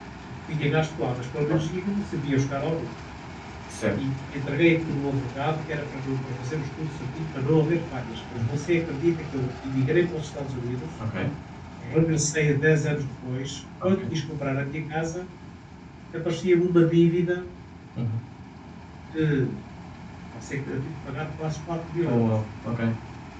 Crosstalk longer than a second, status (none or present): none